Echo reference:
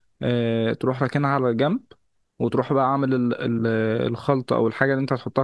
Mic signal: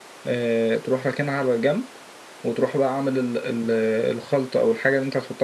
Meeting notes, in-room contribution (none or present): none